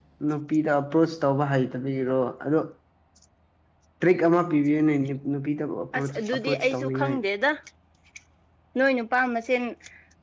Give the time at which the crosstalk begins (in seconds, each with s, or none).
6.0 s